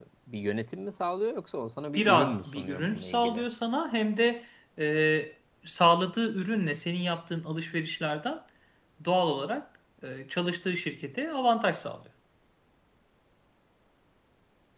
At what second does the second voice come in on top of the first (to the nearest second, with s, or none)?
2 s